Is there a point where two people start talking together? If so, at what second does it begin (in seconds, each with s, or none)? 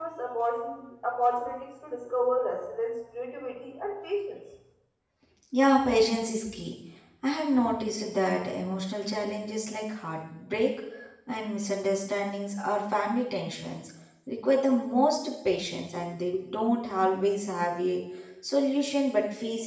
none